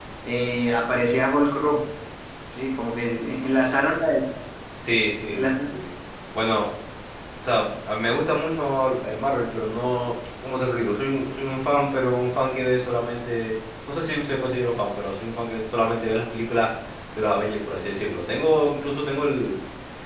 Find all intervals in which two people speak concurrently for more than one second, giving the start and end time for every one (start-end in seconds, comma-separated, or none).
none